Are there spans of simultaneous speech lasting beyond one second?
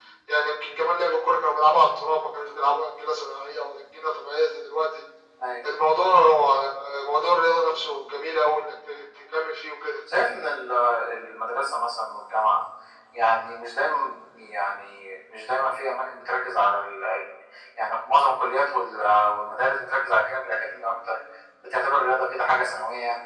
No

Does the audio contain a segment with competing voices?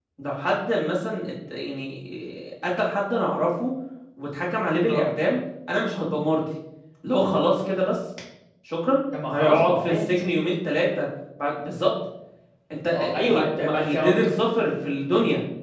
Yes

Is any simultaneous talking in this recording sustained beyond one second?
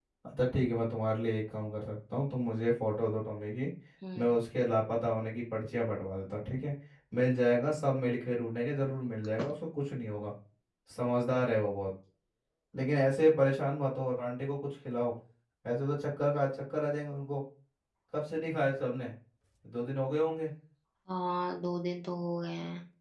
No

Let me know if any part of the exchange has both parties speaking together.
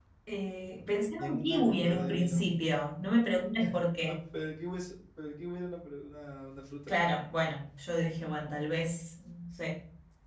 Yes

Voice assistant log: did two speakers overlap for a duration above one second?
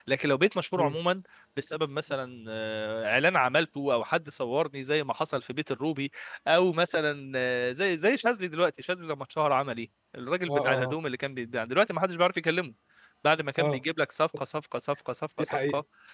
No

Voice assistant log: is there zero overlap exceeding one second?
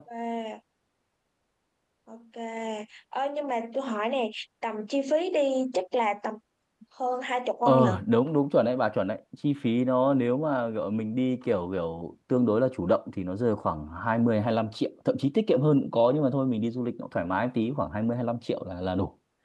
Yes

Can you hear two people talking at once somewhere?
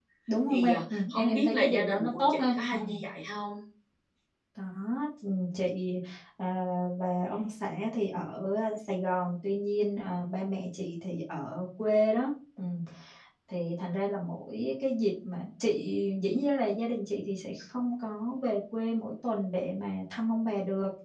Yes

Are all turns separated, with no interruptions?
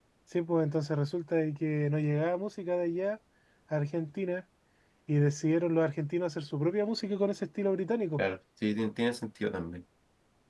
Yes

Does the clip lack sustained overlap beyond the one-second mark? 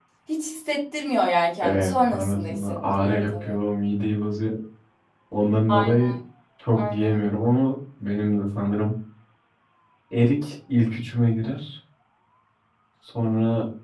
No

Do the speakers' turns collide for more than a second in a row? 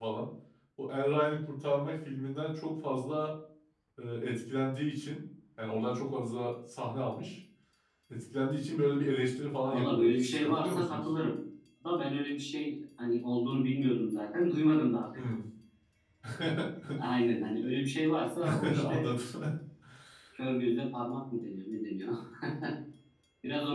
Yes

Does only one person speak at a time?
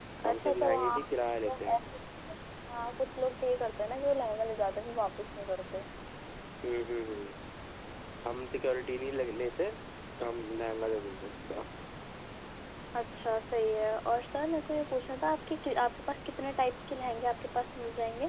No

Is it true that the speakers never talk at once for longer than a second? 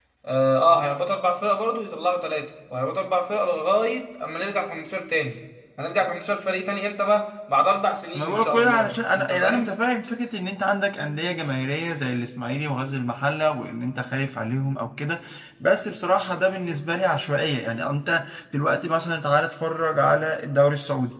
No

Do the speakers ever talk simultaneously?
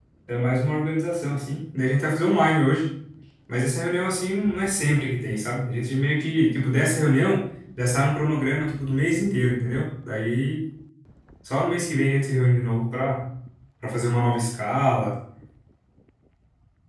No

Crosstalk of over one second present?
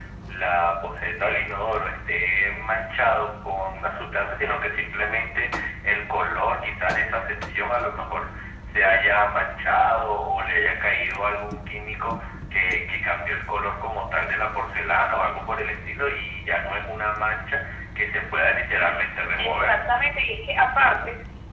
No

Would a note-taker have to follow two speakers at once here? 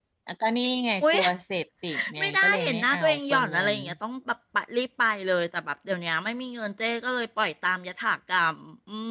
Yes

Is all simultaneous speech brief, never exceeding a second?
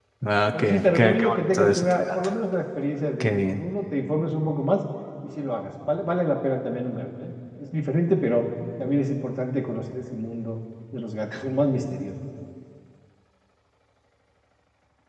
No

